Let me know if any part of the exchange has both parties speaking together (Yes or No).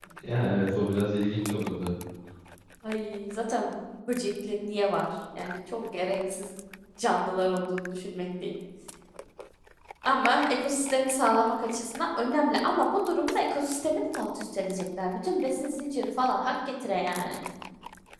No